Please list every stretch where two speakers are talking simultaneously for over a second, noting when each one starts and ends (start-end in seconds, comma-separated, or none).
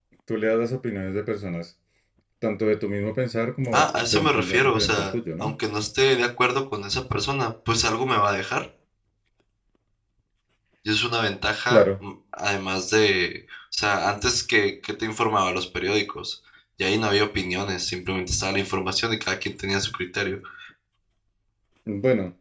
3.7-5.5